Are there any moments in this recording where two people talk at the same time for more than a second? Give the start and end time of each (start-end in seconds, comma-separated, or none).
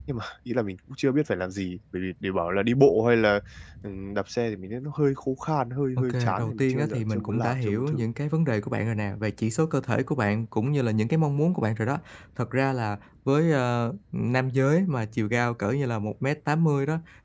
6.0-8.0